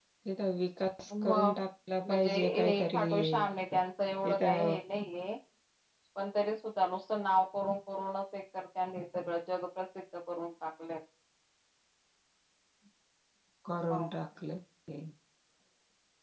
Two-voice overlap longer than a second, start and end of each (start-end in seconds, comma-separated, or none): 2.1-3.3